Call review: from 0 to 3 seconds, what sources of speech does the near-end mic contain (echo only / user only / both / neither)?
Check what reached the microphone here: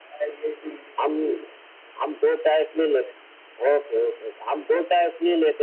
echo only